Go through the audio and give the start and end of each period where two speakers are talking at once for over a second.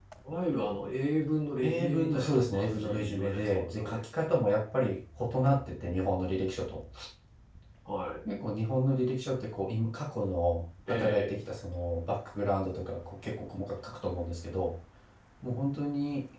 1.6-4.0

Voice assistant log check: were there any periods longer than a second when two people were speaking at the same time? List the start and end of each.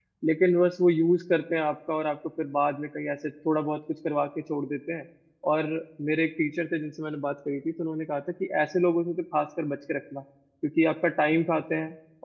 none

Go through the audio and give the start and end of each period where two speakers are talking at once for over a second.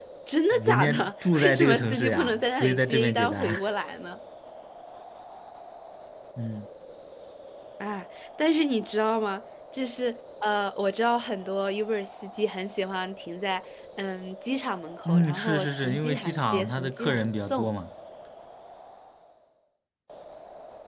0.6-3.5, 15.0-17.7

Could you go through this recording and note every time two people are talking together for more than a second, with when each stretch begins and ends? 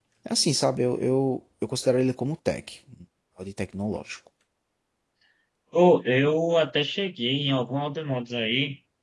none

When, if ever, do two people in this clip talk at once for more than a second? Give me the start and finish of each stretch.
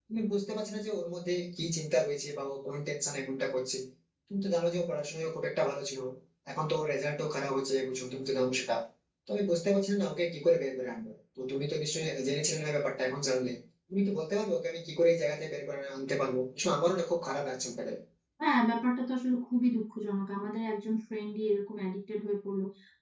none

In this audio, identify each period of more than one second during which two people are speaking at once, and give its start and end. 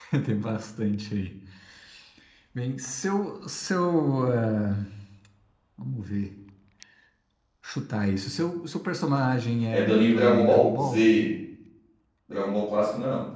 9.7-11.0

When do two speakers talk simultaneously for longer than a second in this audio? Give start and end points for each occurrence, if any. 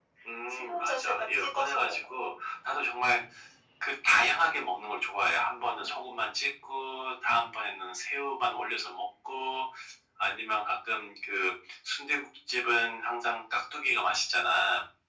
0.6-2.0

